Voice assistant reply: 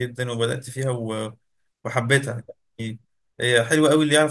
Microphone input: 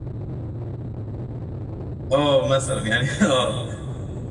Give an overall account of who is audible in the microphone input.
user only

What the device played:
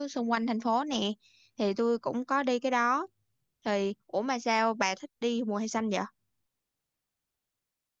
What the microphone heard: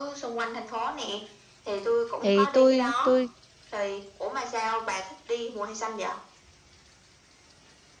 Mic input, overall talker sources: both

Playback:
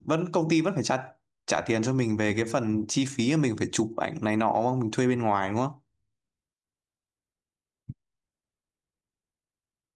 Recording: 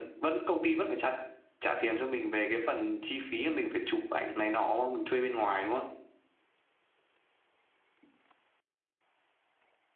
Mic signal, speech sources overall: echo only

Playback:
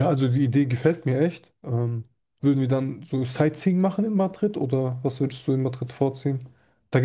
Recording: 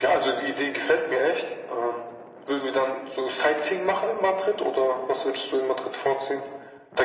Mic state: echo only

